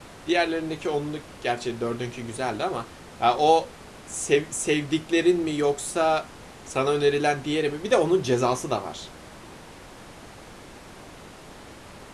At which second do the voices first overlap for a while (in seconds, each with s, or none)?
none